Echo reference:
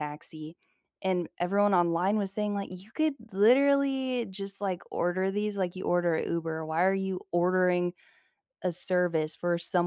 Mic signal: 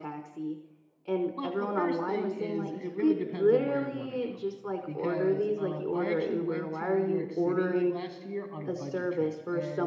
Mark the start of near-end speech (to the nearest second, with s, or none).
1 s